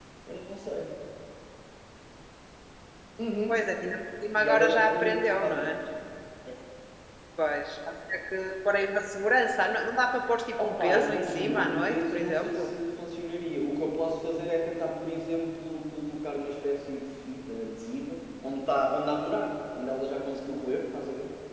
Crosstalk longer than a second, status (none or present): present